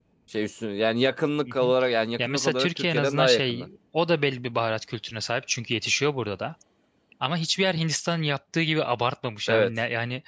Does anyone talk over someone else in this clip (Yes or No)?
Yes